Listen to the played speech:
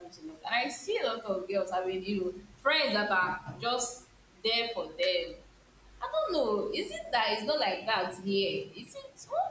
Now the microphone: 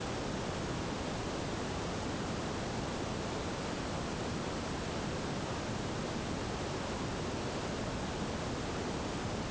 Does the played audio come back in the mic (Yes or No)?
No